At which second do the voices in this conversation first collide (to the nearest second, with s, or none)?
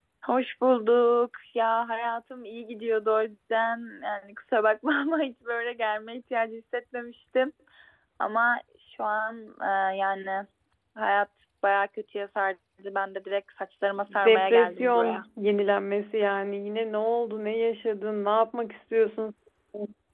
14 s